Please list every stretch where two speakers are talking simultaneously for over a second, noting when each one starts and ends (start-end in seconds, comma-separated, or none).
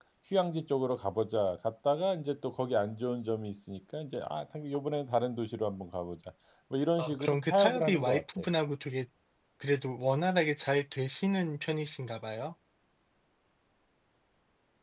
7.0-8.5